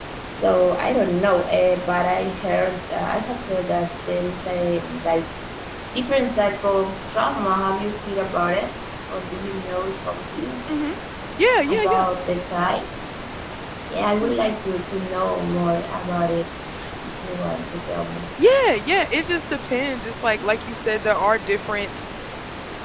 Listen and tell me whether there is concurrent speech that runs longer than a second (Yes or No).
No